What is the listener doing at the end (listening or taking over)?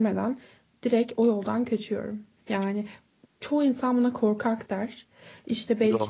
listening